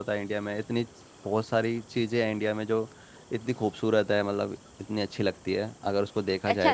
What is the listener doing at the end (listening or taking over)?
taking over